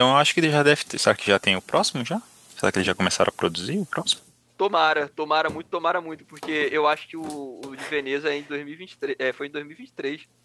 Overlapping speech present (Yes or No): No